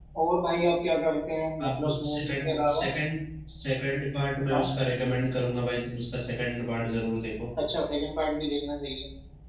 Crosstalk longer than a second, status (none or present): present